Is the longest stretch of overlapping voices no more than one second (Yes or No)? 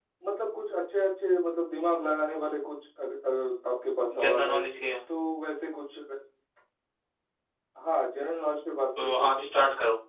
Yes